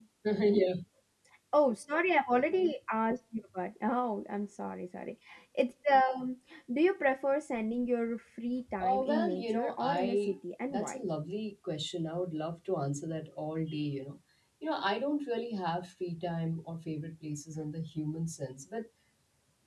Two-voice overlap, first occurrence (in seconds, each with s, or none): 8.7 s